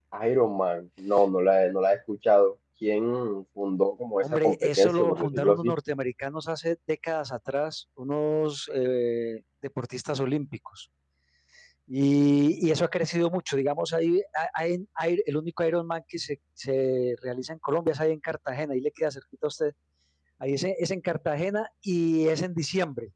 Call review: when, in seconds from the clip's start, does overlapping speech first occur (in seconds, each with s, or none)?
4.2 s